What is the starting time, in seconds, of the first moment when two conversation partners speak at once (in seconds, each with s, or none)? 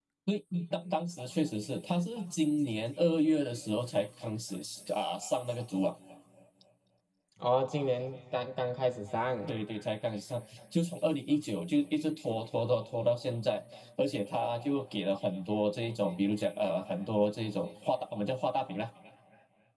none